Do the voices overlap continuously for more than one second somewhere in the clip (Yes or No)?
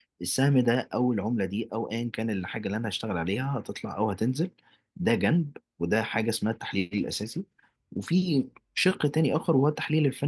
No